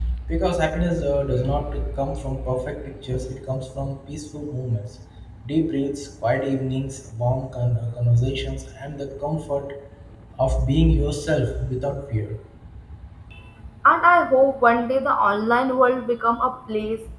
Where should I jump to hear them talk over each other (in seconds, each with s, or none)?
none